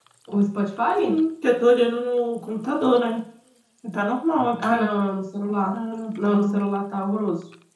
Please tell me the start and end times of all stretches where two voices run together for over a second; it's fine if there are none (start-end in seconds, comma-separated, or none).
none